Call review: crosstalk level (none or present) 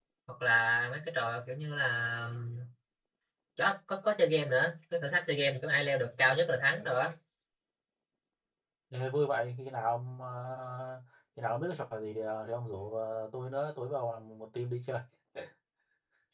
none